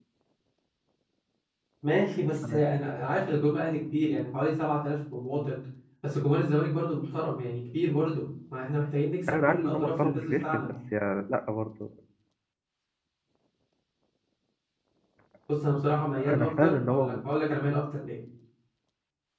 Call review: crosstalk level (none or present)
present